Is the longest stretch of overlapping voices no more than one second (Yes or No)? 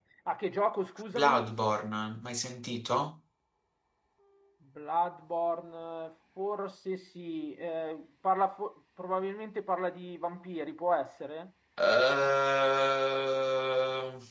Yes